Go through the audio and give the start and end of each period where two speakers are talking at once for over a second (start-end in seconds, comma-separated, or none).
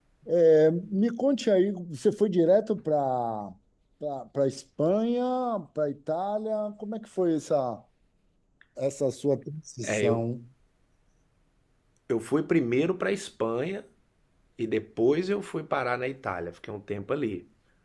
none